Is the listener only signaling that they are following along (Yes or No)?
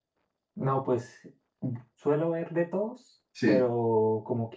Yes